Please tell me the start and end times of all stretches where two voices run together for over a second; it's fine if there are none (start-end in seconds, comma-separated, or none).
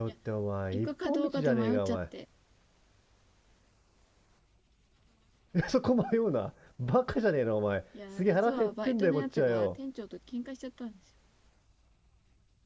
0.7-2.0, 8.2-9.8